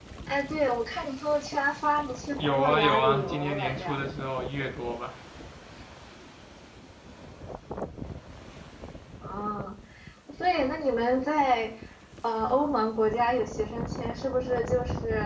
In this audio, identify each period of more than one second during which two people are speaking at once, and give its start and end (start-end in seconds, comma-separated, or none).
2.5-4.0